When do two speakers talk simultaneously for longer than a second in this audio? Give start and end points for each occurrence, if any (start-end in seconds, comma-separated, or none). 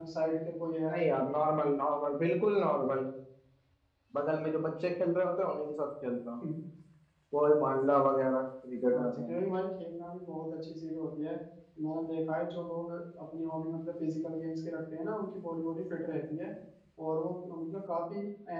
none